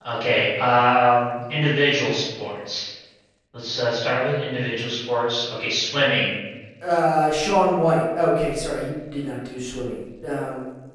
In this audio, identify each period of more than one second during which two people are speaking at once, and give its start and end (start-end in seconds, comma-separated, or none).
none